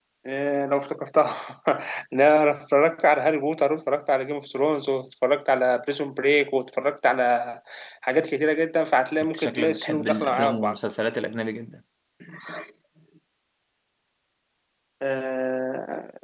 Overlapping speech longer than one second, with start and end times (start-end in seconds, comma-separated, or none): 9.2-10.8